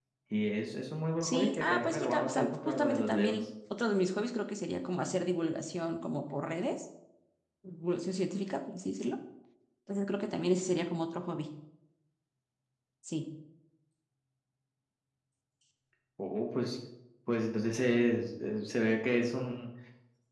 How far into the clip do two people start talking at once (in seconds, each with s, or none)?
1.2 s